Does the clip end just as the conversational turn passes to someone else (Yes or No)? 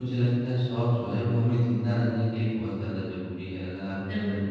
No